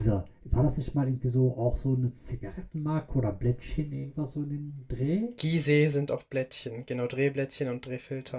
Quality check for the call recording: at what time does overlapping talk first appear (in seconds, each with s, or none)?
none